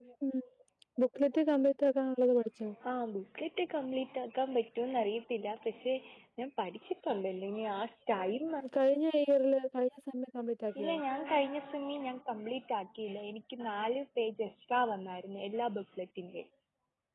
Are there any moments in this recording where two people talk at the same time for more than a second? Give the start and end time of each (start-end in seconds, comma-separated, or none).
none